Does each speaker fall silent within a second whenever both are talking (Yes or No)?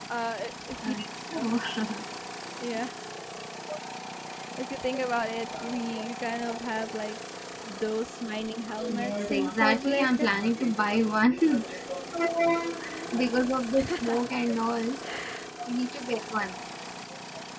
No